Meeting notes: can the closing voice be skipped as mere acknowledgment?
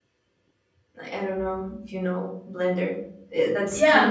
No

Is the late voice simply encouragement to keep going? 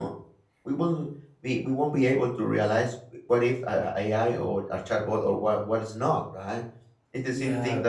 Yes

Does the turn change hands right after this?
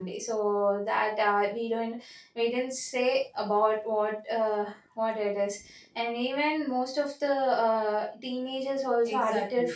Yes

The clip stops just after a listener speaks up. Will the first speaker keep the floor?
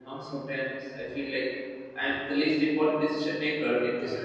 No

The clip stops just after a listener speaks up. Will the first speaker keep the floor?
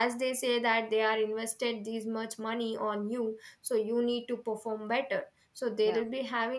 Yes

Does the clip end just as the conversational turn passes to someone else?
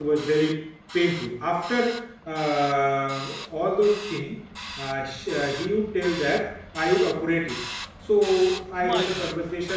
No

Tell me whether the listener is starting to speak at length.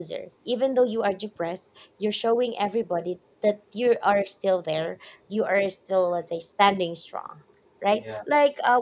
No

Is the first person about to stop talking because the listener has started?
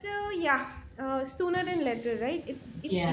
No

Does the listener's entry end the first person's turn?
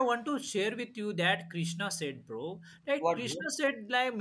No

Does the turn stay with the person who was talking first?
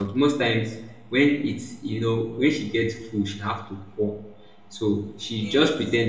Yes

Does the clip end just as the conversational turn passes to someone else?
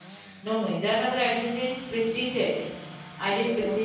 No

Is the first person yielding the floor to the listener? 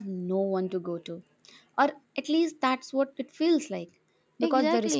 No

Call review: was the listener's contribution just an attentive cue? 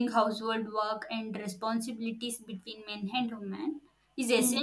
Yes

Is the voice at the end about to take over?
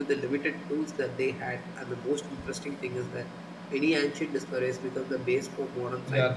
Yes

